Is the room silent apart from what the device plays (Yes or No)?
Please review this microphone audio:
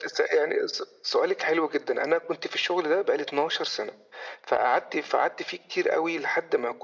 Yes